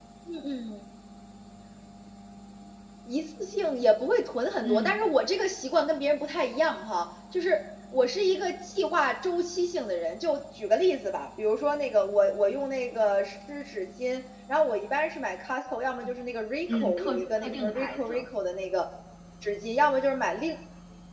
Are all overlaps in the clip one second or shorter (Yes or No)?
No